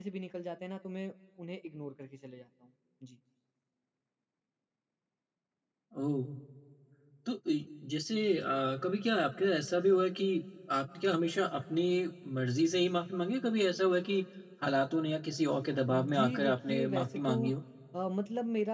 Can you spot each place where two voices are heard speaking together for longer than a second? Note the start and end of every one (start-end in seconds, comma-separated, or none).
15.9-17.3